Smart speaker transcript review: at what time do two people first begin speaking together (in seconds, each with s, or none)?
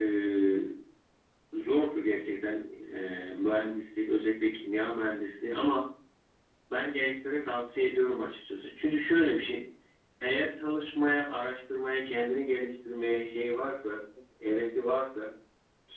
none